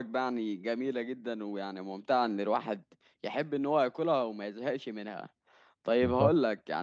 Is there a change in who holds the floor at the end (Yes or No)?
No